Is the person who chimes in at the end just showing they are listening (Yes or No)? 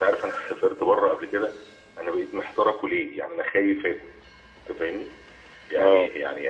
Yes